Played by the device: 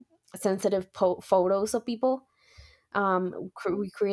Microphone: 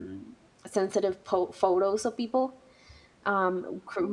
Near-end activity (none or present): none